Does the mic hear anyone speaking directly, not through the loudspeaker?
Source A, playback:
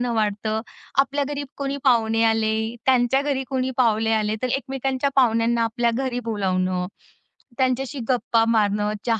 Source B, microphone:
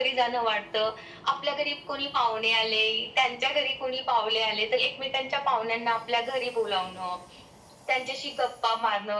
No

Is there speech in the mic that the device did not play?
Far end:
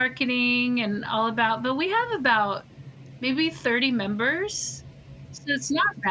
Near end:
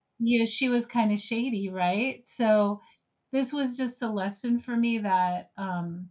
Yes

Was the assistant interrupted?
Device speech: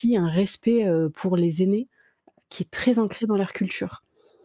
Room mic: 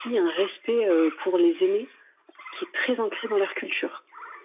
No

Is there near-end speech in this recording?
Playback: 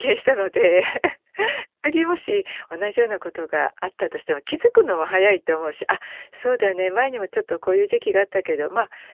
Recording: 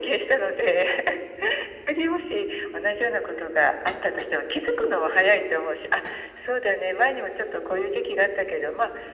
No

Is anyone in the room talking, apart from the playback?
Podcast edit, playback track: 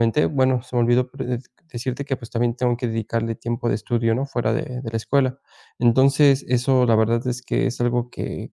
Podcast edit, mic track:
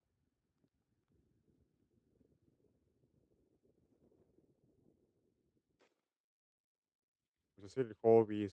Yes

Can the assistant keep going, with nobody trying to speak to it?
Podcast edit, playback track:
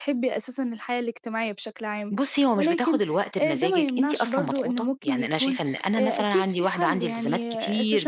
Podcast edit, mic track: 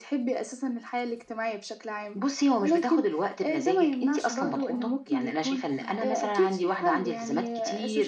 No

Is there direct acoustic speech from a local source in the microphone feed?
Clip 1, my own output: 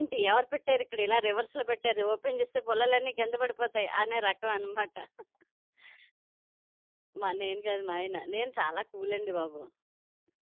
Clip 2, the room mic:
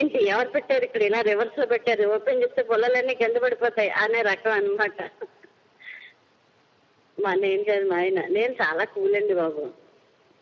No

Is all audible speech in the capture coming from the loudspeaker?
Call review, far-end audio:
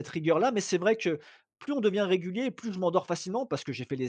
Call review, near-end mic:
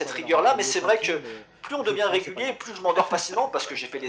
No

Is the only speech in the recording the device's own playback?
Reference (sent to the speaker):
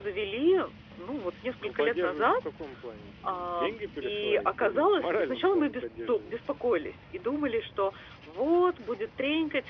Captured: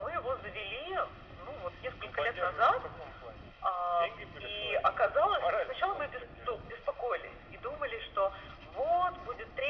Yes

